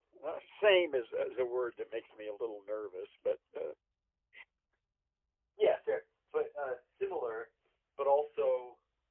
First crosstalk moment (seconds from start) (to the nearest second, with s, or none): none